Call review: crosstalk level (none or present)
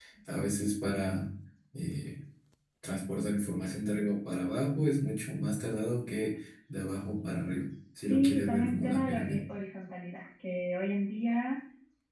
present